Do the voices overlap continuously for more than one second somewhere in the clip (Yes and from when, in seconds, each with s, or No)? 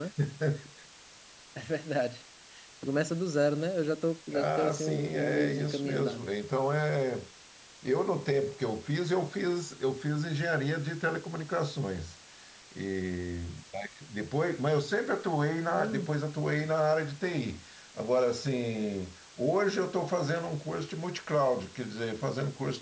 Yes, from 4.3 s